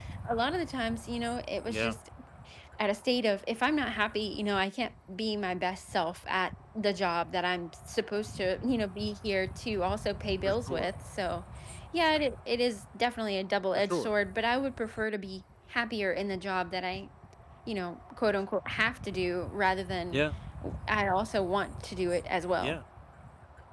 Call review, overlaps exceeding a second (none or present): none